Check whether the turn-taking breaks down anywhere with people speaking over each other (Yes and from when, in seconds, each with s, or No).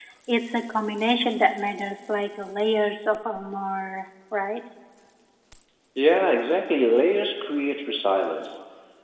No